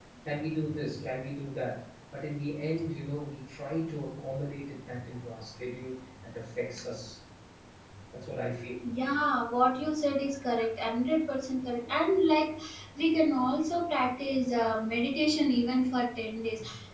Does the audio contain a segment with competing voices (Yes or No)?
No